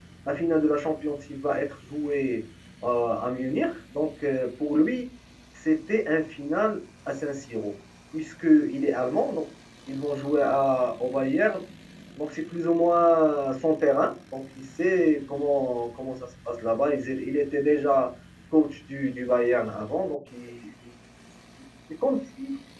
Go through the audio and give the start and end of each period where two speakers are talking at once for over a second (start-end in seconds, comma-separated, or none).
none